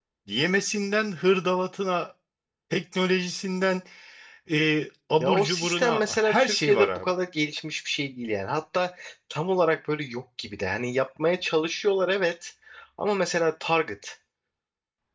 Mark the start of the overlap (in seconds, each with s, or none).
5.2 s